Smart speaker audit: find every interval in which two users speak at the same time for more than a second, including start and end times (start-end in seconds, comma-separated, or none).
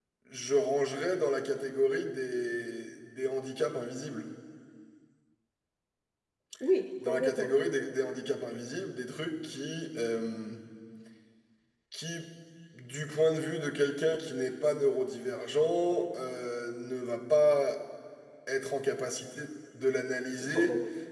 none